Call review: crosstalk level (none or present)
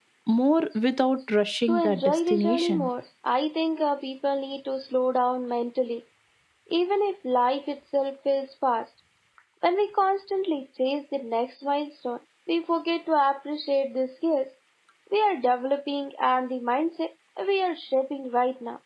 present